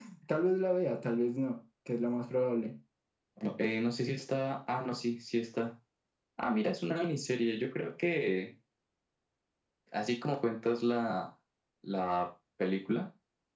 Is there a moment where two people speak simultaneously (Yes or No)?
No